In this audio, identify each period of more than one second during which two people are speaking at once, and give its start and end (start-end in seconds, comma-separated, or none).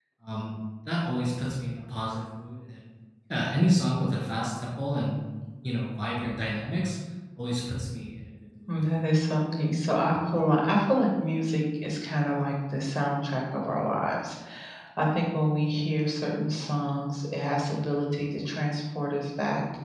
none